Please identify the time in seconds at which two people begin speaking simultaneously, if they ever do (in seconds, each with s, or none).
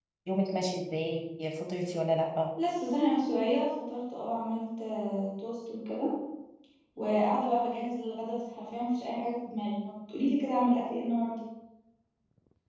none